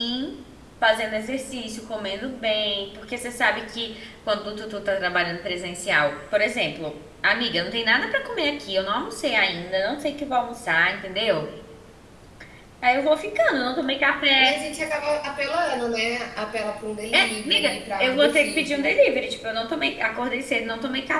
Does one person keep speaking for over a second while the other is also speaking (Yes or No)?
Yes